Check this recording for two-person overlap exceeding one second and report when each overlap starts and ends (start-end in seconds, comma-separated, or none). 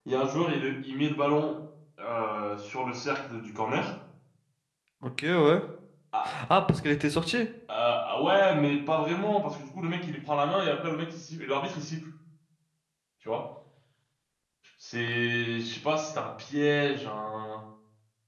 none